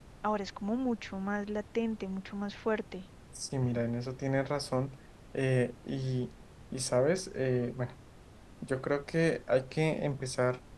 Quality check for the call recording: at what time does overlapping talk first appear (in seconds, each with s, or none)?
none